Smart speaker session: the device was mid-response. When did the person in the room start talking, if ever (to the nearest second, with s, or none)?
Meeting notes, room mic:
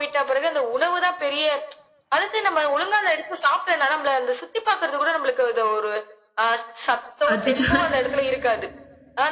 7 s